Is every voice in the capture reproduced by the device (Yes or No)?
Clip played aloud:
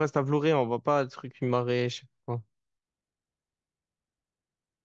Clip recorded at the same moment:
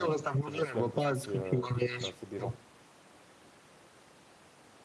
No